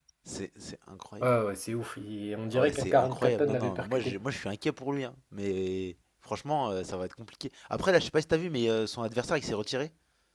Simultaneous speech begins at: 2.5 s

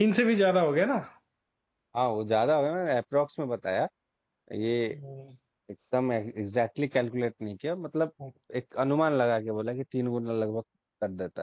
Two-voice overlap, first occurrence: none

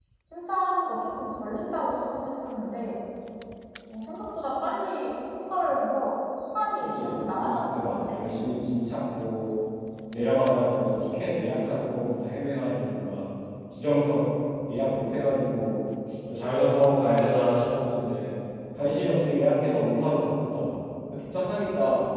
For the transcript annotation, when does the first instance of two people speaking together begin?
6.8 s

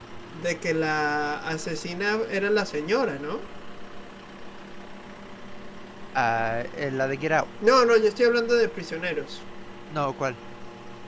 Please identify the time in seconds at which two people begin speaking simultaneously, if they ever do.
none

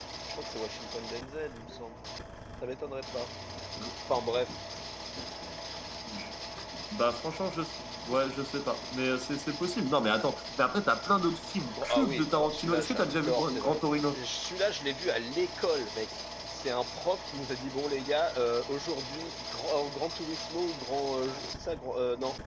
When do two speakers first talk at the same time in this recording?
11.7 s

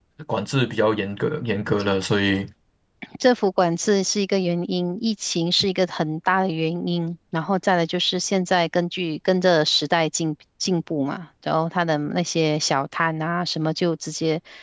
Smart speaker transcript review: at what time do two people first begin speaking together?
none

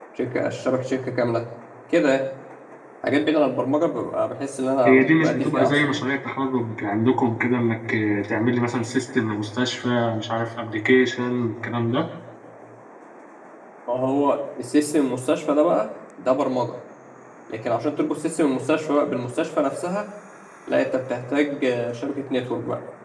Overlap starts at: 4.8 s

